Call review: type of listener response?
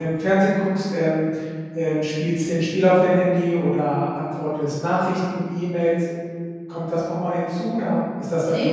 taking over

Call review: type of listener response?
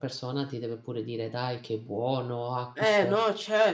taking over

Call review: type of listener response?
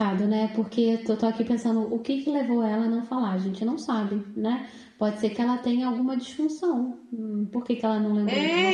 taking over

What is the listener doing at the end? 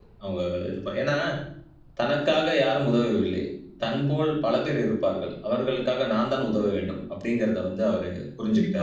taking over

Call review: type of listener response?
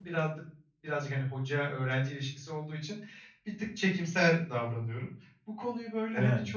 listening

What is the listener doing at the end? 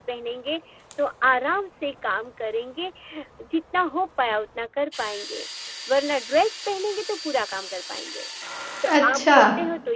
listening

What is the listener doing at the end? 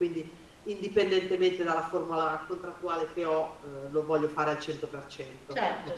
taking over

